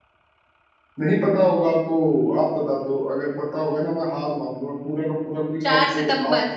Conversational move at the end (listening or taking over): taking over